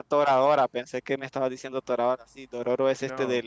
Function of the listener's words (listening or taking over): listening